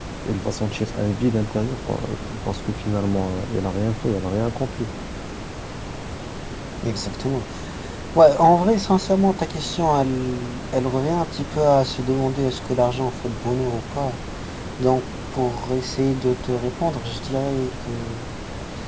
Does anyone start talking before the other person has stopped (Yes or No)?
No